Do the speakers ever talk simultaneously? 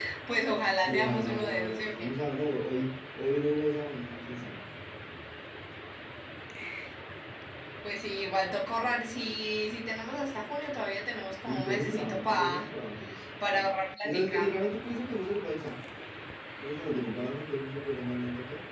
Yes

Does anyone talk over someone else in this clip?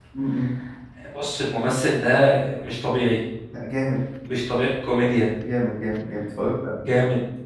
No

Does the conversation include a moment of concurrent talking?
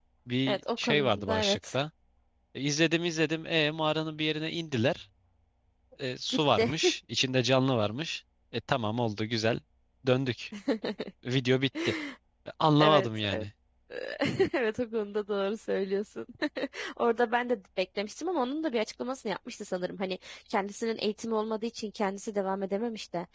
Yes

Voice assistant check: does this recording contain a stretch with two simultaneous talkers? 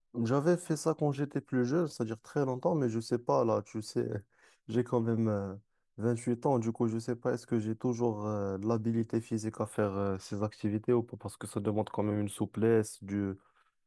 No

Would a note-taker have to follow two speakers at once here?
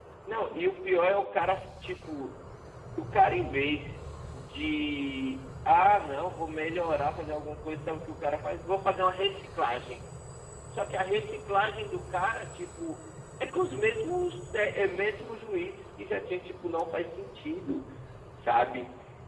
No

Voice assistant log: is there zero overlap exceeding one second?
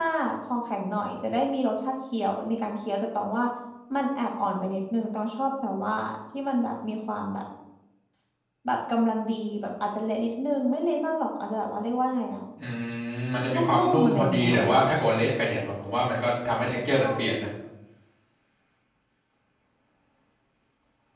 No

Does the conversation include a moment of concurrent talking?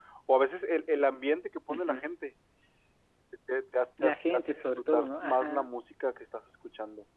Yes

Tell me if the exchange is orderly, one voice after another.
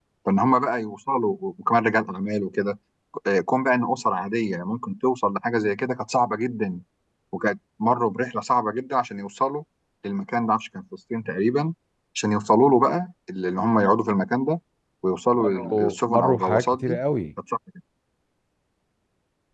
No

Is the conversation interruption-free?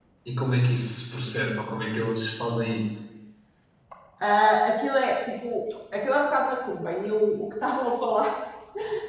Yes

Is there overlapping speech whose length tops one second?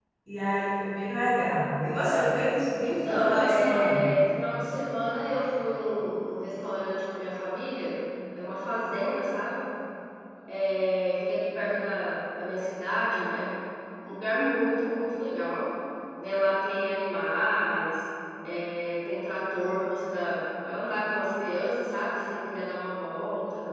Yes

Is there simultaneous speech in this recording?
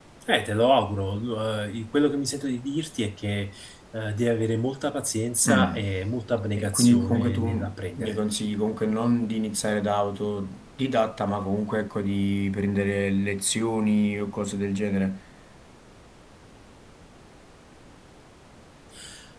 Yes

